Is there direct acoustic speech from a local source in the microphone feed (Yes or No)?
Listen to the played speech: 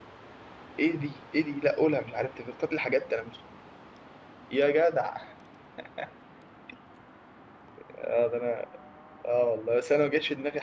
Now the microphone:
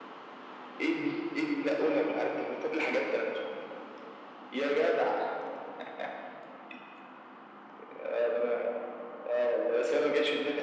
No